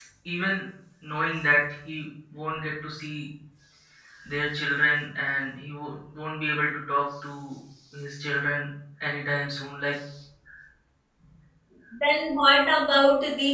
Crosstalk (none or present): none